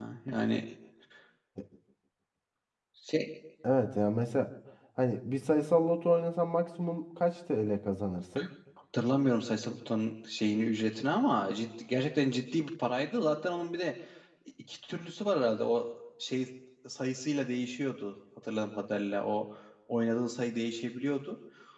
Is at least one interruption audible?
No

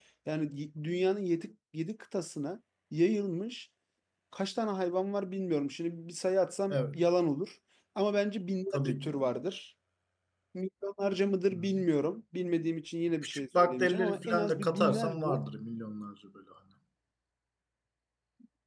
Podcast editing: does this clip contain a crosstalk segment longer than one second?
Yes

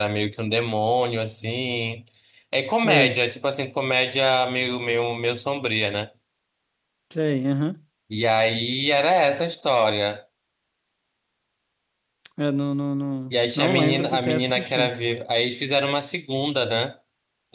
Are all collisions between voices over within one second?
No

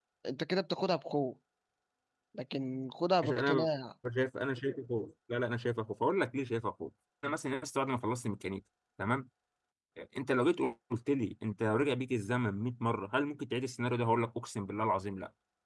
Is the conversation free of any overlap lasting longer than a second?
Yes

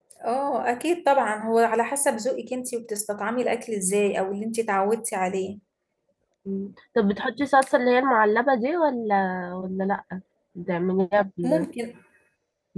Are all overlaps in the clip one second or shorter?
Yes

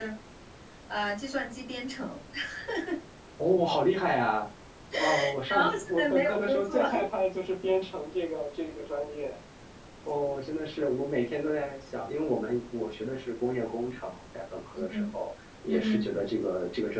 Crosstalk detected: Yes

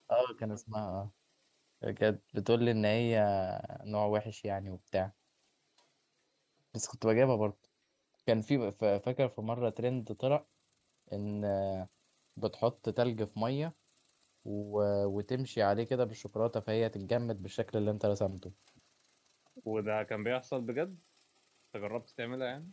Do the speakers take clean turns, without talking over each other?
Yes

